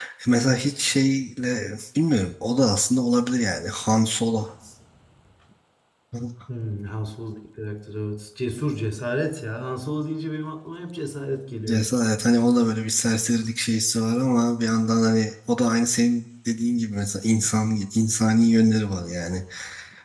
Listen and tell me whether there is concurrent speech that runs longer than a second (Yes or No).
No